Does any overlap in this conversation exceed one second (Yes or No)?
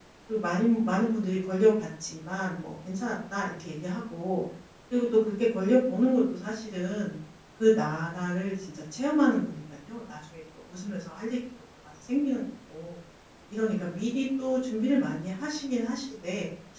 No